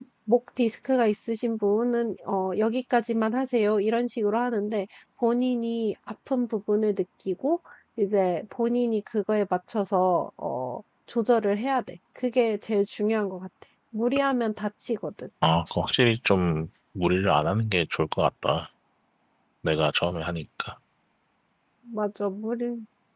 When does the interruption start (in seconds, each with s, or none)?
none